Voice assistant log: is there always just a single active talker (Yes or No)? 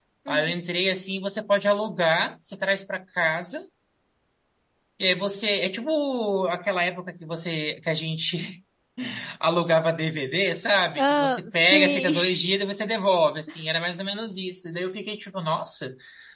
No